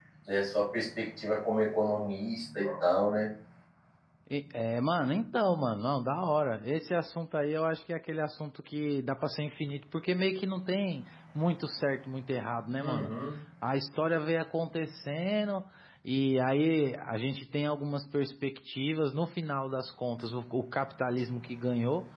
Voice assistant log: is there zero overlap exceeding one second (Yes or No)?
Yes